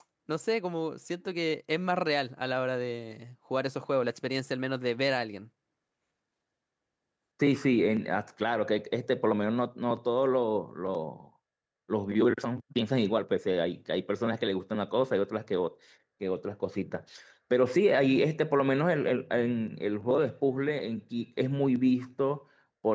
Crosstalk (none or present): none